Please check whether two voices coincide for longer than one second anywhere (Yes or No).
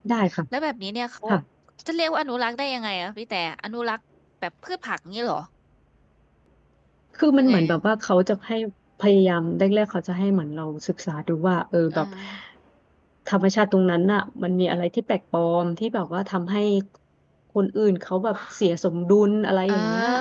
No